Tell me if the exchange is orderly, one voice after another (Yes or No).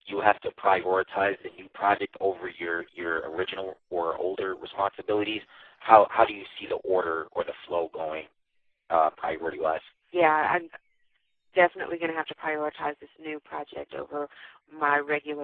Yes